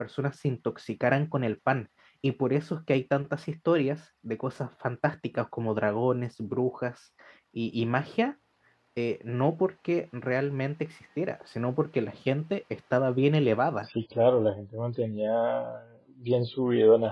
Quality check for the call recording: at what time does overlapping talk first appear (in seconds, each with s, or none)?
none